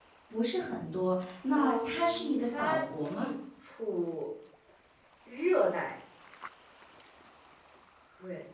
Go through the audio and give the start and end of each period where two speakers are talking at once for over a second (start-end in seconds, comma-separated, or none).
1.5-3.3